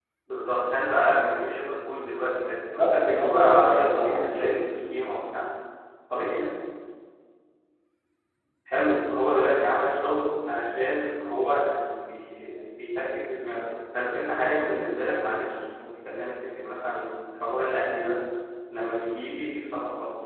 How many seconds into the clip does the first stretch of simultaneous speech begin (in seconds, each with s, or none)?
2.7 s